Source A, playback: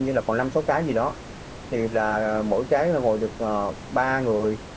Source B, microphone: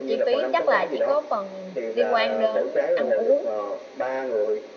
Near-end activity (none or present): present